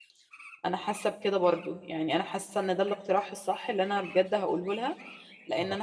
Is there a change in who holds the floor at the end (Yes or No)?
No